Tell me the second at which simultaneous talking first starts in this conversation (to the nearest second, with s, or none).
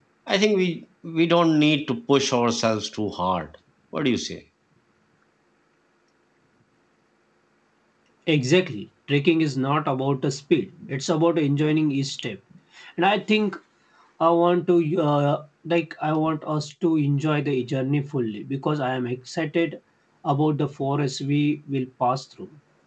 none